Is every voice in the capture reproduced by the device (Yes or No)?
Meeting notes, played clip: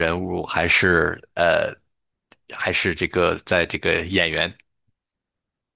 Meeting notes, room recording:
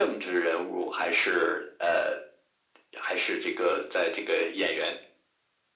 Yes